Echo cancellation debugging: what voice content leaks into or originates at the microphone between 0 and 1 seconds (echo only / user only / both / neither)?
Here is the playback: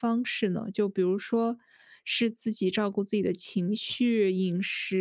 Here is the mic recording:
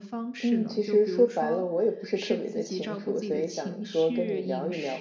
both